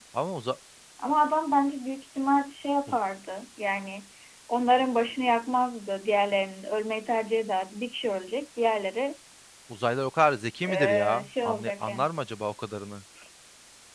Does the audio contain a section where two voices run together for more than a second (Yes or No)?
Yes